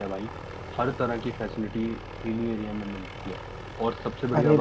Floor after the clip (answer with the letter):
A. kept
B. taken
B